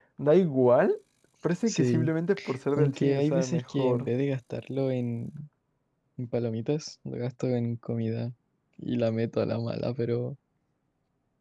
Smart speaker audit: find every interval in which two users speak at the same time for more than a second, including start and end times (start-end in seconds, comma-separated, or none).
2.8-4.1